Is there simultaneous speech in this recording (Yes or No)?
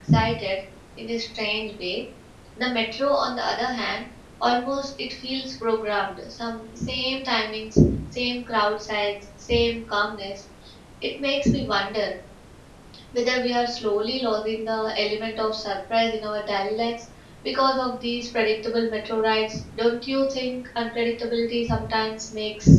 No